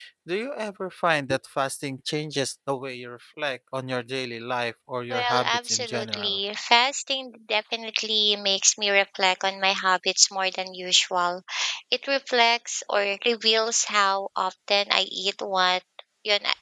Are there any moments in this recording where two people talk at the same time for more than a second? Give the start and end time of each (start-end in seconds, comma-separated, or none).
5.1-6.4